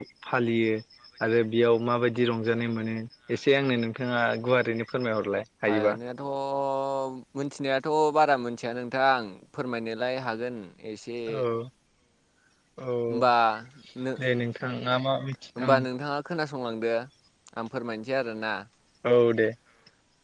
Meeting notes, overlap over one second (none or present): none